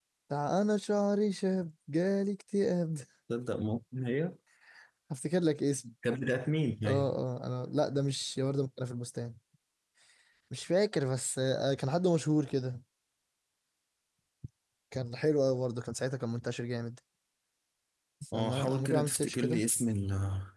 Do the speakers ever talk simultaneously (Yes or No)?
Yes